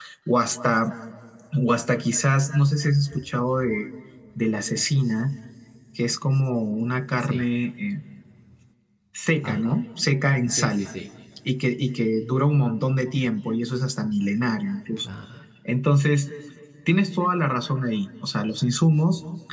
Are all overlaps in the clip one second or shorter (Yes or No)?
Yes